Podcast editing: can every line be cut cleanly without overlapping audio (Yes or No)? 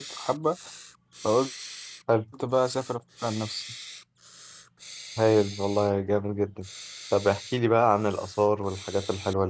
Yes